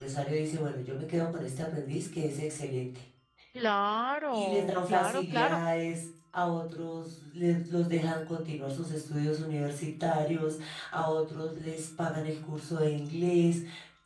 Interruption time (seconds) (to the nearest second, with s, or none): 4 s